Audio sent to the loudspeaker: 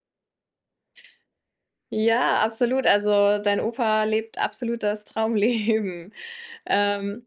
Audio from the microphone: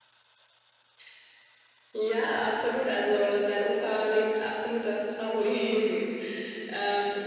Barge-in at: none

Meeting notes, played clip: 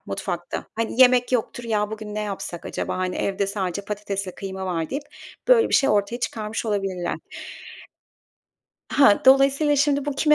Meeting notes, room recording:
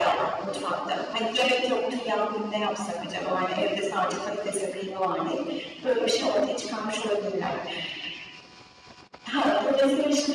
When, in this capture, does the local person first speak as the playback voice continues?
none

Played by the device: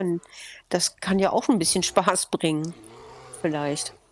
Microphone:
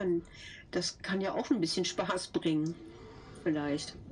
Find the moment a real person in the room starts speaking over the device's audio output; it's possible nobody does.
none

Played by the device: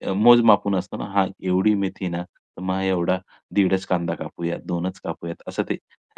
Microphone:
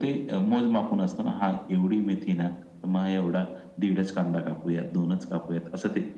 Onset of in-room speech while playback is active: none

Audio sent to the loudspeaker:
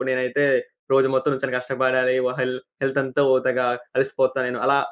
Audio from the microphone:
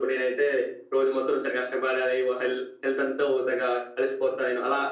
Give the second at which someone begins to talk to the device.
none

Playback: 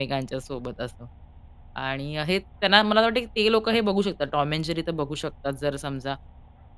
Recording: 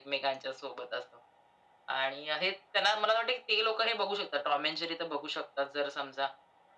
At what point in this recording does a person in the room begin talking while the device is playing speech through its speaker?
none

